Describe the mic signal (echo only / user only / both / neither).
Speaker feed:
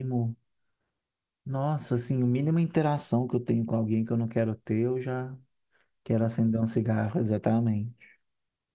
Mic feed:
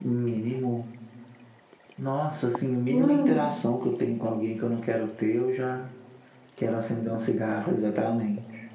both